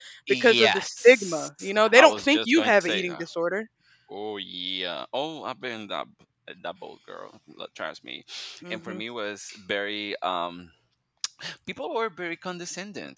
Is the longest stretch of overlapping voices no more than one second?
No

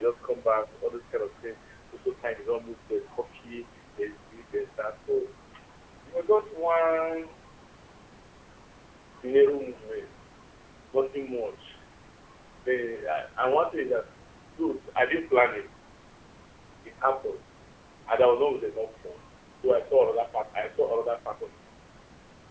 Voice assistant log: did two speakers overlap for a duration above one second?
No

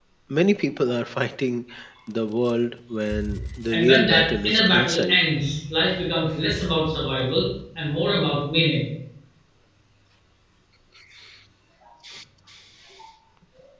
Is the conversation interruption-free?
No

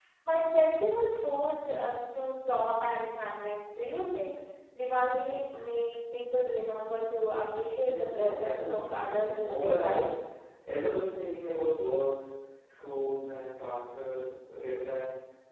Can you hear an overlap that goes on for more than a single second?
Yes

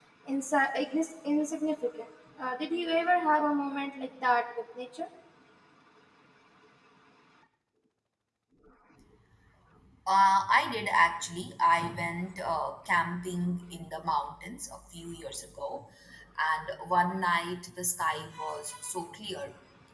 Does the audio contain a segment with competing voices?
No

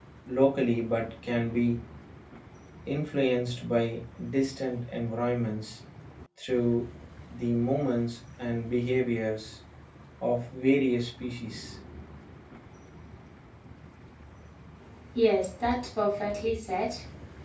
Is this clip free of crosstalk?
Yes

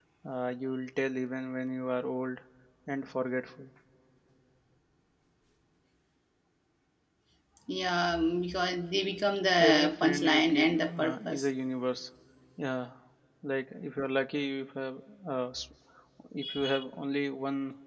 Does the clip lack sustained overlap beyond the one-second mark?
No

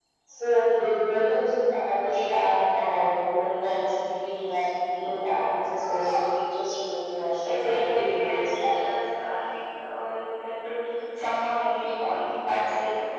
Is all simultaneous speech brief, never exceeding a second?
No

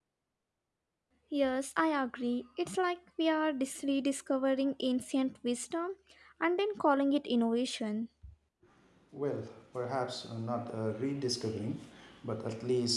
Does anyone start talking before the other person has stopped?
No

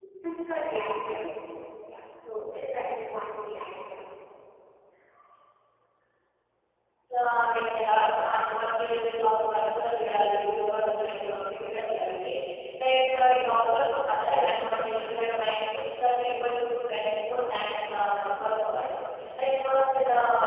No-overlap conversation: Yes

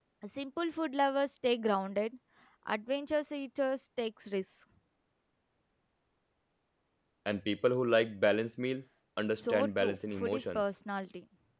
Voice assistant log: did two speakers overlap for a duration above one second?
Yes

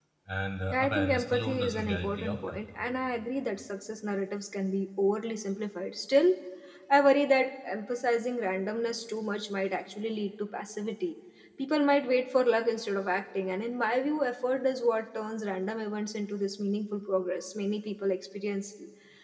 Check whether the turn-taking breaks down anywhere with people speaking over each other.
Yes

